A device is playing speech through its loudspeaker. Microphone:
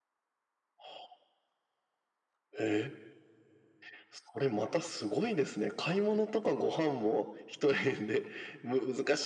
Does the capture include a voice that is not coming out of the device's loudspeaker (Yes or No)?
No